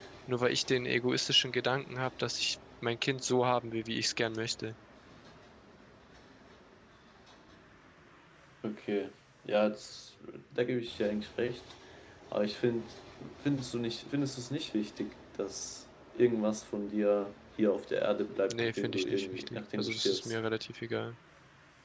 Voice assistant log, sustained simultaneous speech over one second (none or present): present